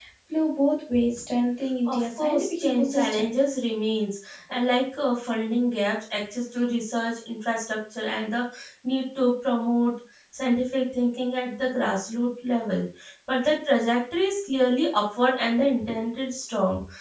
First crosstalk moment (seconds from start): 1.9 s

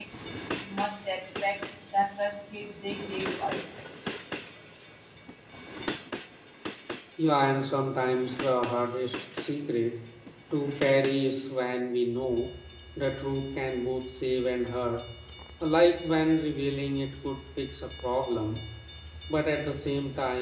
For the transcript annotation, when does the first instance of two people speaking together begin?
none

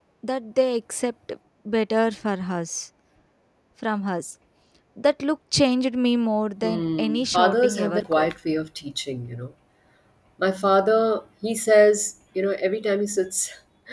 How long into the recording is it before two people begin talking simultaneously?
6.6 s

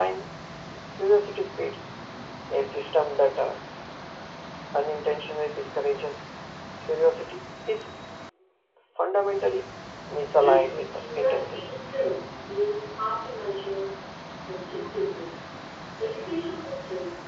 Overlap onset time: 10.4 s

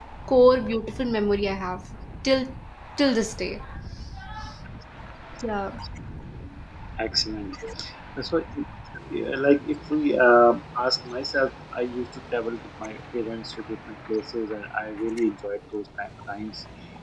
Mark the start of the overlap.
none

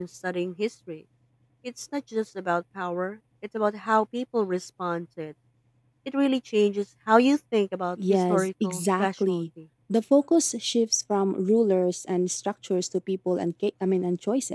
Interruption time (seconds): 8.0 s

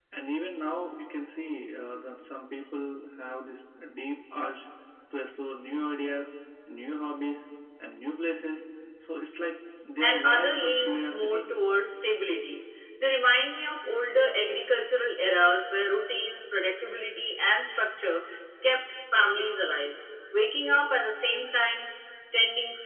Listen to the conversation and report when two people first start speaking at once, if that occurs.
10.0 s

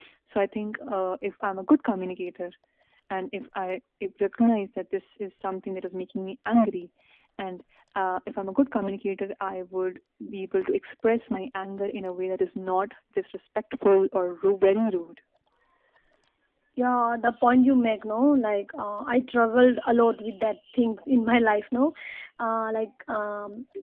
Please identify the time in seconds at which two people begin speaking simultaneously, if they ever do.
none

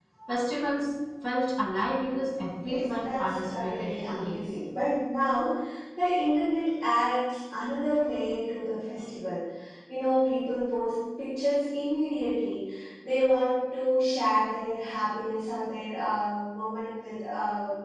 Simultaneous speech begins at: 2.6 s

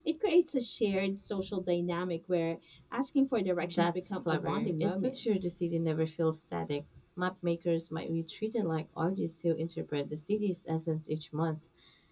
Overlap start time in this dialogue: 3.6 s

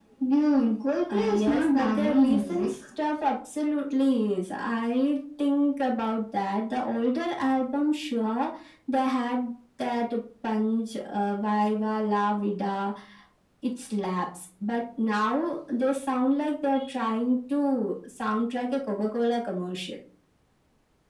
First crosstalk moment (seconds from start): 1.1 s

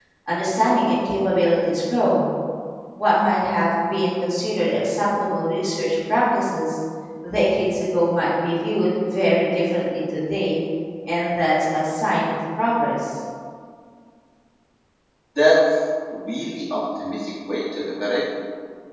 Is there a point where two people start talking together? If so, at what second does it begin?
none

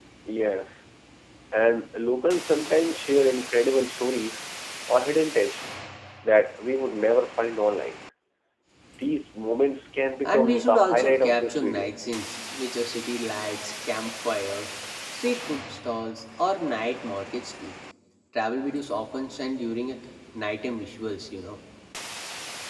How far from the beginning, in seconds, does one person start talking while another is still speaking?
10.2 s

